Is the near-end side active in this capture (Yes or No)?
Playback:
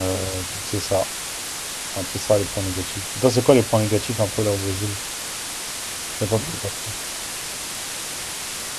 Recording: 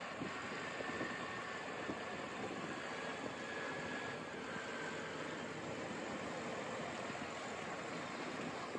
No